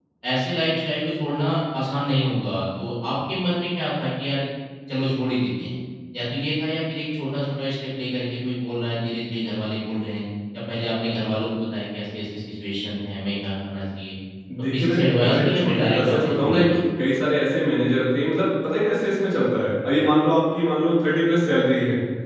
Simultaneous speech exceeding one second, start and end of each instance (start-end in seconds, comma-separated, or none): 14.7-16.8